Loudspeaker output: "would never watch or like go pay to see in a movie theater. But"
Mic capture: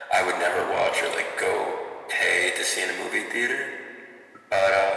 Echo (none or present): present